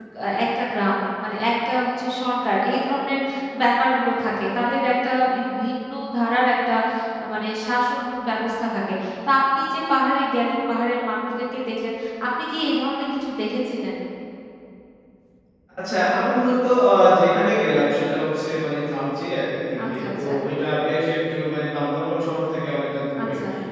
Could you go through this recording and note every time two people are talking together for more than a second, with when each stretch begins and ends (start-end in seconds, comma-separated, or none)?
none